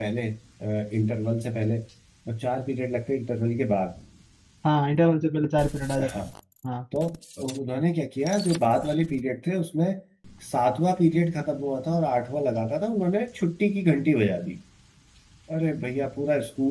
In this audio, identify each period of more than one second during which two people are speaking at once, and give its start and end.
none

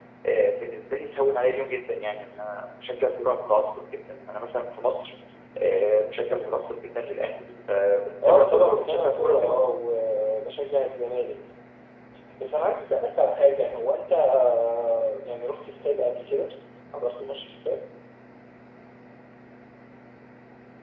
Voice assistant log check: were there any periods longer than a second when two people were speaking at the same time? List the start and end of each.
8.2-9.6

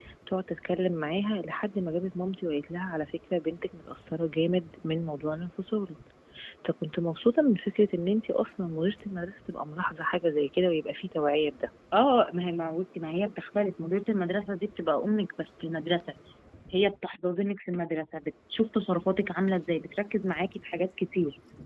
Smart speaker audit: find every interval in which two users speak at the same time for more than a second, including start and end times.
none

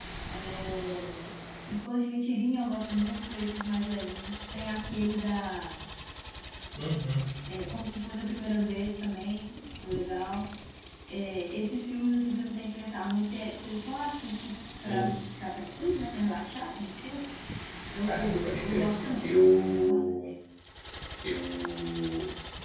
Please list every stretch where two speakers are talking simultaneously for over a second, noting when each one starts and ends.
18.1-20.2

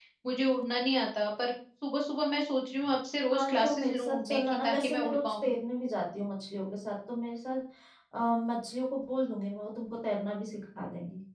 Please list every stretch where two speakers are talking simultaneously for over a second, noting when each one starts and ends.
3.3-5.5

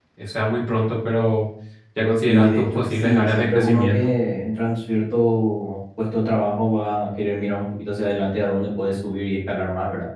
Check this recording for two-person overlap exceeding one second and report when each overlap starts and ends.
2.2-4.1

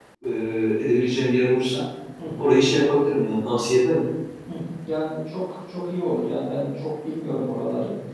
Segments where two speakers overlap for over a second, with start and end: none

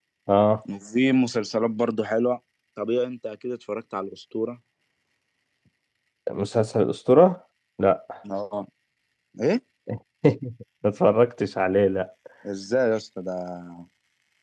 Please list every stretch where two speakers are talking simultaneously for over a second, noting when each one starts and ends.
none

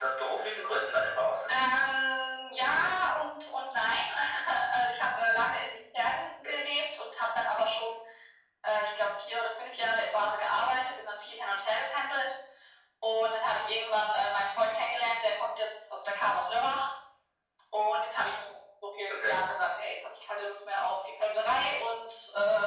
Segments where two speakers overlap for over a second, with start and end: none

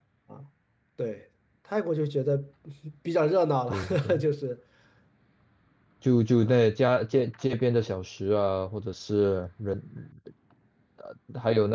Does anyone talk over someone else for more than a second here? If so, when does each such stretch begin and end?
none

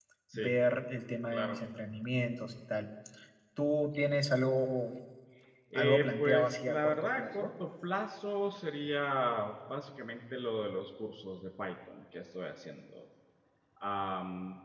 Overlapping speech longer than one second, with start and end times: 5.8-7.5

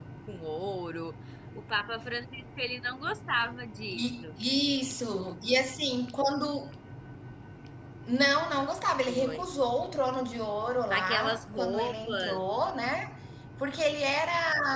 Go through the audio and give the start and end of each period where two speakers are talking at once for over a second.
10.9-12.5

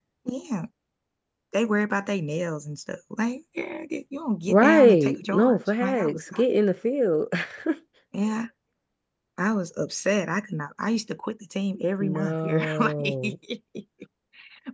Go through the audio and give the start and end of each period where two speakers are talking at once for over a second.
4.5-6.4, 12.0-13.3

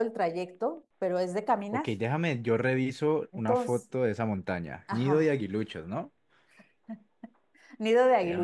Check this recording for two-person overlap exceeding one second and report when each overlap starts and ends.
none

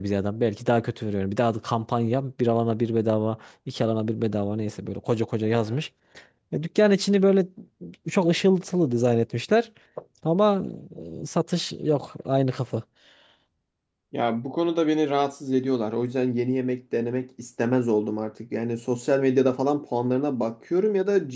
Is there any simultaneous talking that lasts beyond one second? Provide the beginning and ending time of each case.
none

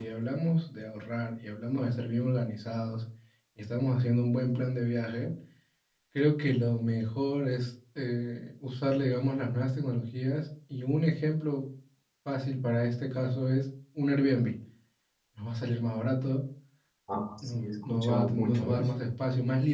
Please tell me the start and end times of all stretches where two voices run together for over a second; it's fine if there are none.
17.4-18.9

